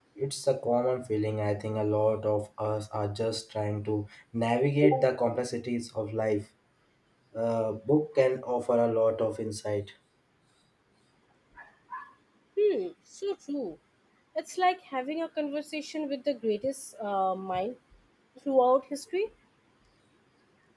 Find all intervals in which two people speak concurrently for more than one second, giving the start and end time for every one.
none

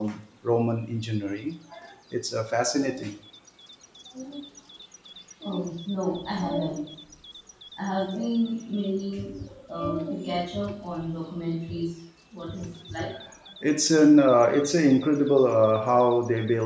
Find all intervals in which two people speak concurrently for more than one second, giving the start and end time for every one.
none

